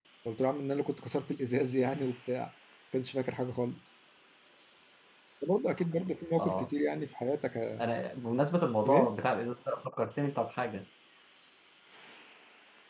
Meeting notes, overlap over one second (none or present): none